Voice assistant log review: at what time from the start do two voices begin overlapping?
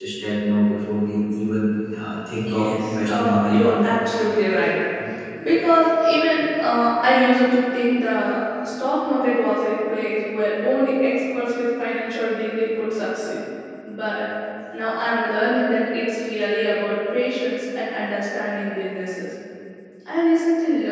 2 s

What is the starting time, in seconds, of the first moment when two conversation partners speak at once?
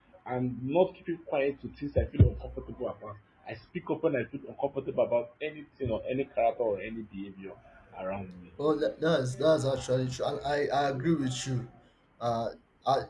none

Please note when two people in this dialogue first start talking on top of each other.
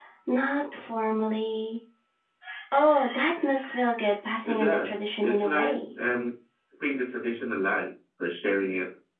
4 s

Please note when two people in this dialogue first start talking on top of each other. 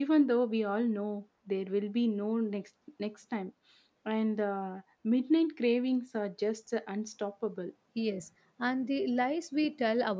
none

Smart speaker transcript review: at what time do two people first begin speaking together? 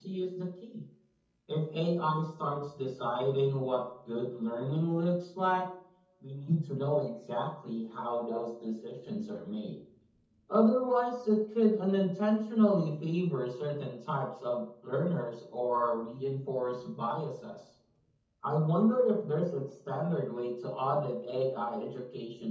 none

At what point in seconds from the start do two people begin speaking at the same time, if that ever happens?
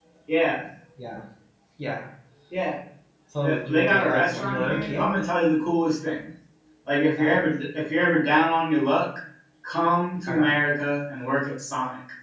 3 s

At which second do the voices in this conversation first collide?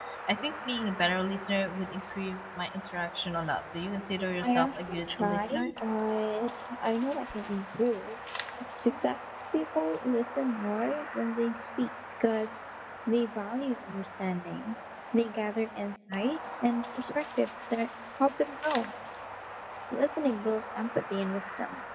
4 s

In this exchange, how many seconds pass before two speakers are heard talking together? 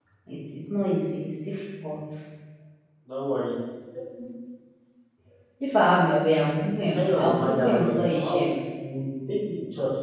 7 s

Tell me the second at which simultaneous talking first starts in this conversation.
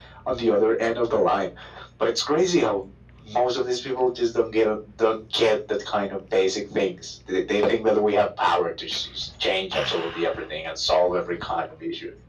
none

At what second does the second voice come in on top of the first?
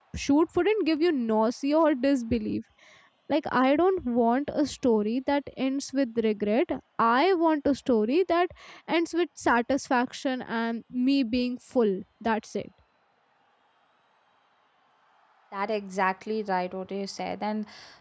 none

